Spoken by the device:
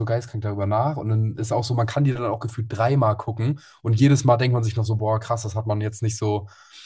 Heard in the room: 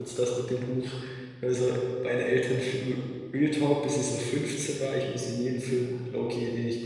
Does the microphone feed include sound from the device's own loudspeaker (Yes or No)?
No